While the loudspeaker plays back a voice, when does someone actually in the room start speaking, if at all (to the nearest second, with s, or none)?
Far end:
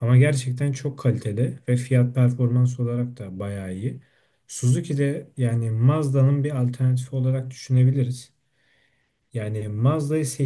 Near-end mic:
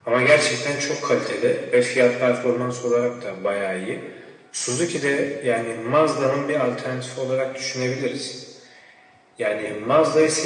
none